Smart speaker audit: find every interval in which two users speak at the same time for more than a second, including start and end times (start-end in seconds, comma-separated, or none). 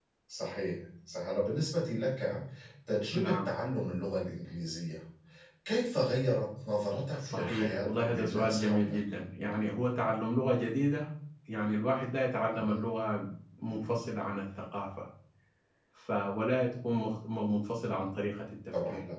7.2-9.0